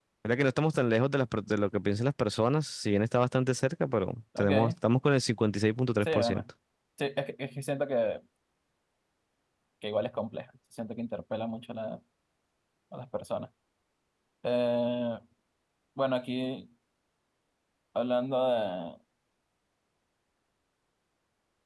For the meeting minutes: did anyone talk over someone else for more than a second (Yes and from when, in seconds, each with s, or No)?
No